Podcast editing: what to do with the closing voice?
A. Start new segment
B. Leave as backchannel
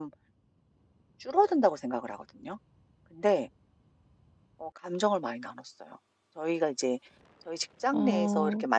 B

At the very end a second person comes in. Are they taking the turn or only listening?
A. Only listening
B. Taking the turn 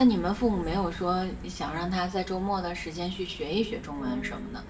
B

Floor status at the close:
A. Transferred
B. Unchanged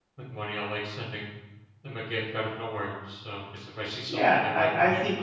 A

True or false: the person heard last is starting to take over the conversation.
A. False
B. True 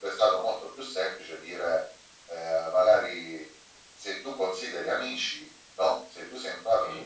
A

